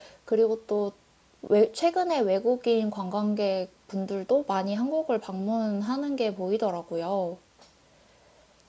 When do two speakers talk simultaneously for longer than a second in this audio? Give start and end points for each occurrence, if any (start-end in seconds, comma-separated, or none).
none